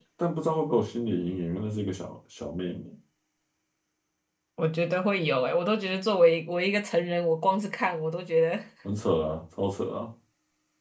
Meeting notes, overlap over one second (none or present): none